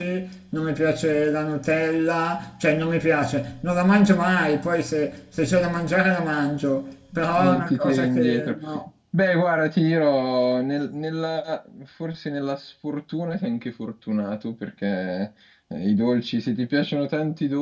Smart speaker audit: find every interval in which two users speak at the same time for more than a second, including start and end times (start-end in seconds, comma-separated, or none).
7.4-8.6